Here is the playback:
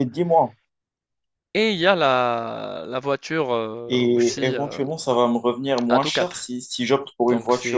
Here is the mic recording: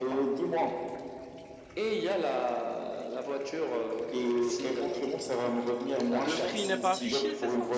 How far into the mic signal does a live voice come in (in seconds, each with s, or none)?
6.2 s